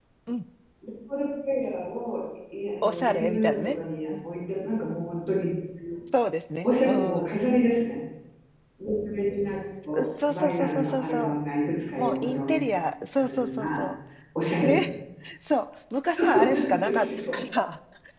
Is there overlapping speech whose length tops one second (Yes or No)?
Yes